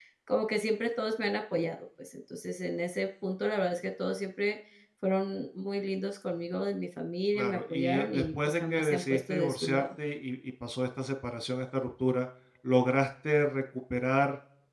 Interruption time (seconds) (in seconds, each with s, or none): 7.3 s